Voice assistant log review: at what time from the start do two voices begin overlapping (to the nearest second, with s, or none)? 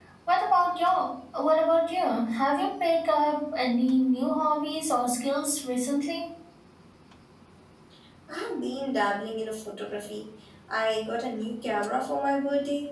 none